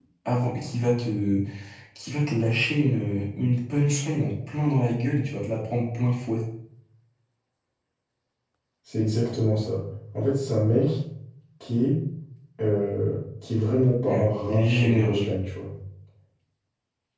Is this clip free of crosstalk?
No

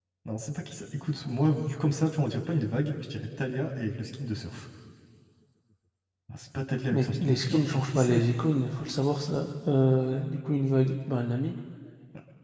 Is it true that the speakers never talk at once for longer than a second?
No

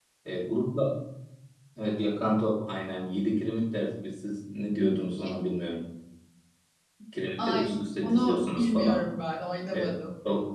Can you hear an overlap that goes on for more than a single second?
Yes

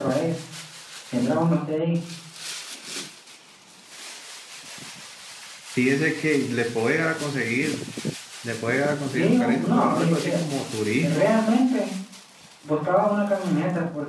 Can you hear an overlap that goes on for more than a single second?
Yes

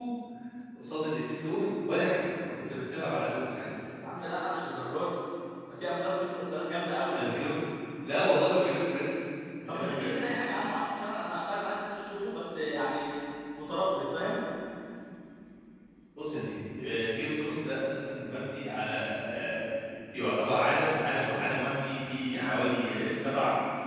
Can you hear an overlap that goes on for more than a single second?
No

